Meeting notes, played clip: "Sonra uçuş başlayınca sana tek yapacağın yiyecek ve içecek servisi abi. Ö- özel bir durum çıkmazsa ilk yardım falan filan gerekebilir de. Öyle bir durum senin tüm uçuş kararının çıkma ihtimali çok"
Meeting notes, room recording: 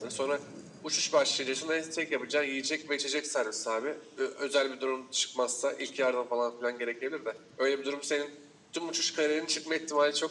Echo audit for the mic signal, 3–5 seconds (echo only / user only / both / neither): echo only